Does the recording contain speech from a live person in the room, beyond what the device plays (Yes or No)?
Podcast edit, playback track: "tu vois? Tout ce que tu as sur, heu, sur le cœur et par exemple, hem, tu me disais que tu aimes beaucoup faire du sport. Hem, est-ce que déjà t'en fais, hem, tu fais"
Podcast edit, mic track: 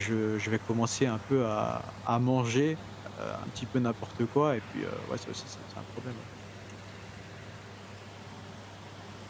Yes